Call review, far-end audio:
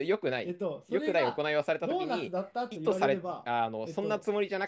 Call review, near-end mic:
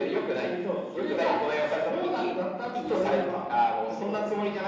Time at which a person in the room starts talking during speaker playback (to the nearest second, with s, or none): none